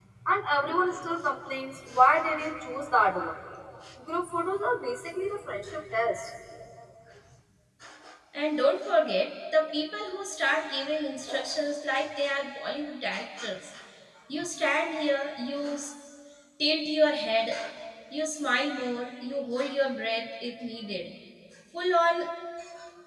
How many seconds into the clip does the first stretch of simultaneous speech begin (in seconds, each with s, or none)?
none